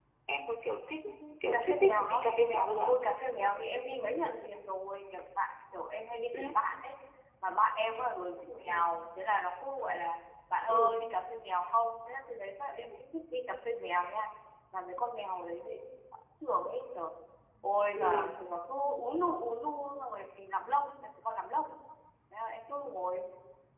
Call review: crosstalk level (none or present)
present